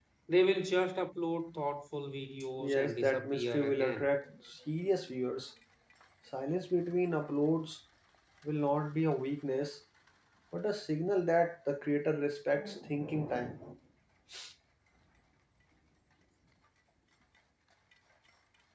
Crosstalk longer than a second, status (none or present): present